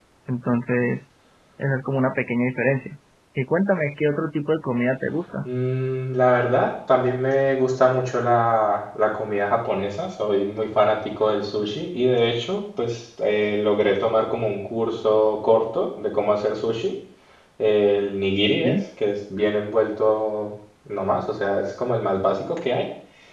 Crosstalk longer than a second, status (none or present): none